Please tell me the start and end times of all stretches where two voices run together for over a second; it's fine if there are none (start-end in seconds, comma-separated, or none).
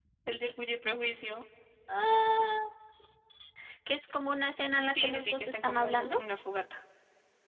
4.9-6.2